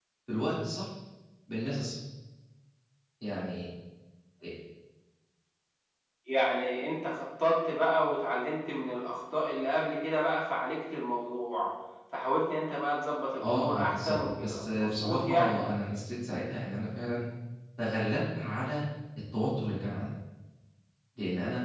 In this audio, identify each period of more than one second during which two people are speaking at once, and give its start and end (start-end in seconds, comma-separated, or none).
13.4-15.6